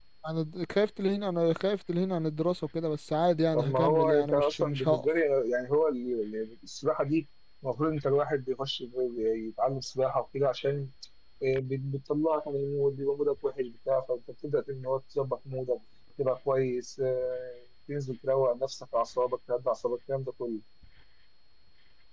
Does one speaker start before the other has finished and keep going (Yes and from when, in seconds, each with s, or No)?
Yes, from 3.5 s